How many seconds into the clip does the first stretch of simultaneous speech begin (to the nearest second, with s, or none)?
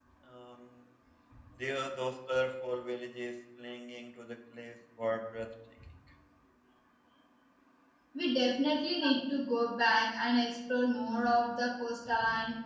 none